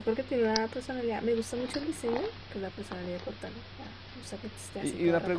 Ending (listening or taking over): taking over